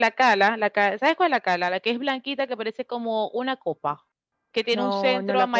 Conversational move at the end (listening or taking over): taking over